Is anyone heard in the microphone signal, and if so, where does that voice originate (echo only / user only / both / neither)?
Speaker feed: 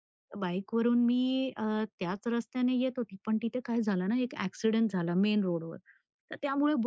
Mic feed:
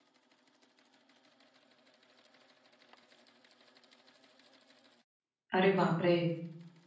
user only